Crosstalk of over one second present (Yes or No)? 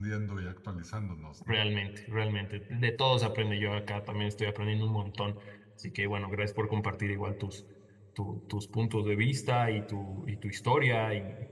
No